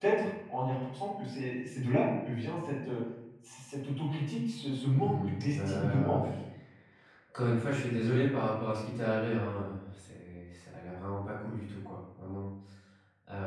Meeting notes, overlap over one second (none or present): present